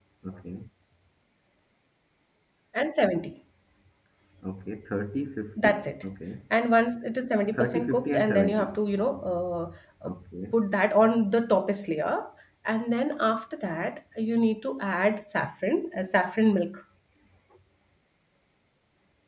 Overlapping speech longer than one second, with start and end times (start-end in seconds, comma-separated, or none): 7.5-8.8